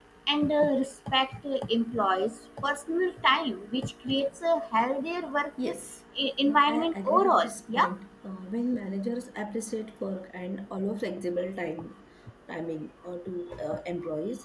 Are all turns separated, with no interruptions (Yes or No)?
No